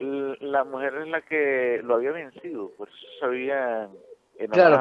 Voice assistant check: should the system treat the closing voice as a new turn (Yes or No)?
Yes